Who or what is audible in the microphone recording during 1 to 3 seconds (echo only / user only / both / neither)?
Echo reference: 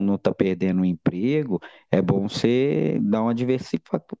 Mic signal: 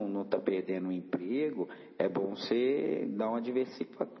echo only